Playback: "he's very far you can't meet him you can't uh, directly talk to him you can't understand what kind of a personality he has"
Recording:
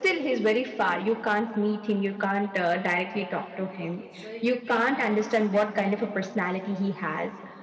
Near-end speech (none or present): present